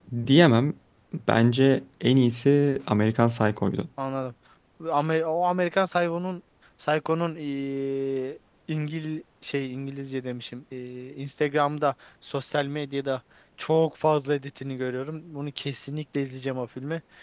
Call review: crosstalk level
none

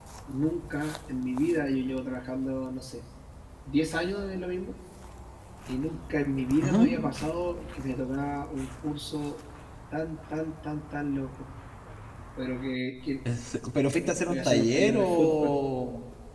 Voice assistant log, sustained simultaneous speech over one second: present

